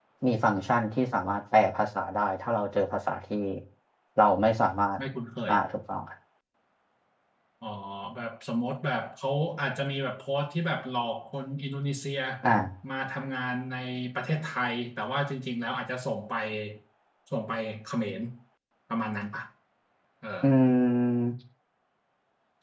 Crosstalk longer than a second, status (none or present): none